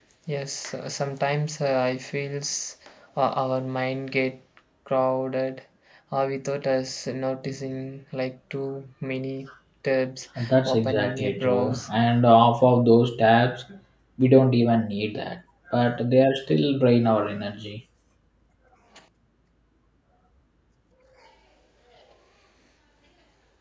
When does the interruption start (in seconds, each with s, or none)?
10.7 s